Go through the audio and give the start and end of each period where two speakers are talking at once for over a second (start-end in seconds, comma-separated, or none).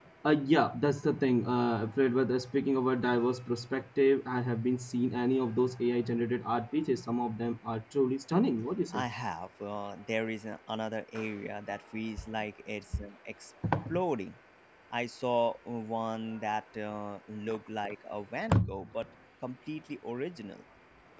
none